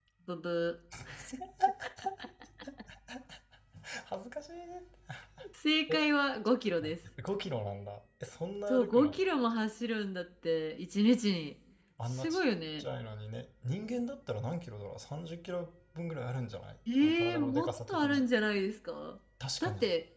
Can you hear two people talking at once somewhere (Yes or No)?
Yes